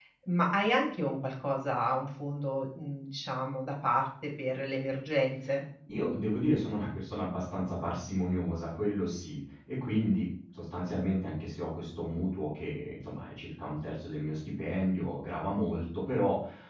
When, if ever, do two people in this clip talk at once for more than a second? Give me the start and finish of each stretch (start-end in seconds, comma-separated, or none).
none